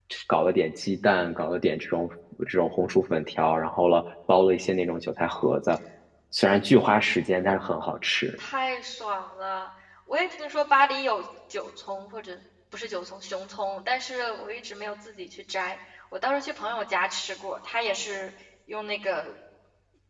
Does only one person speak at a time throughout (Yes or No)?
Yes